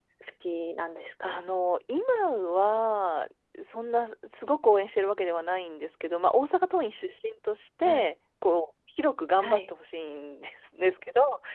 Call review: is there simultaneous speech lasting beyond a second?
No

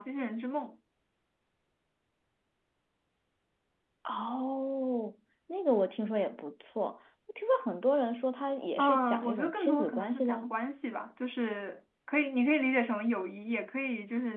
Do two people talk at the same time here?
Yes, from 8.8 s

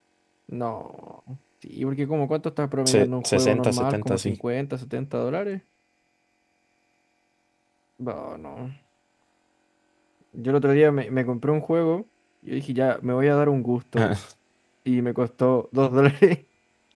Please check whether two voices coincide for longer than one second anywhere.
Yes, from 2.9 s

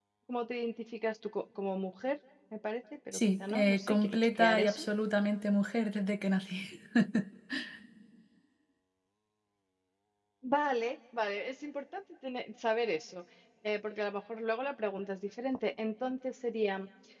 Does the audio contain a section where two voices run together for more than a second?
Yes, from 3.1 s

